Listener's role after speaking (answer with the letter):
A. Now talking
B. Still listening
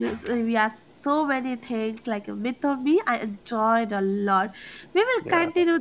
B